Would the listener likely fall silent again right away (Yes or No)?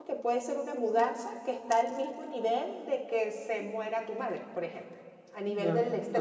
No